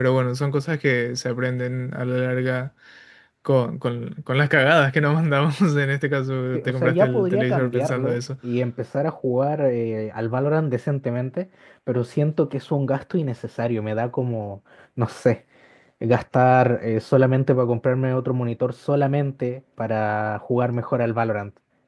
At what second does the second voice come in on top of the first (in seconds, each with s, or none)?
6.5 s